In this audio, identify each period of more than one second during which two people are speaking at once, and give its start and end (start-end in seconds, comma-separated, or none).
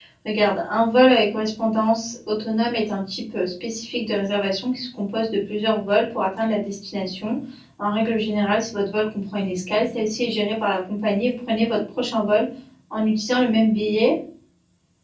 none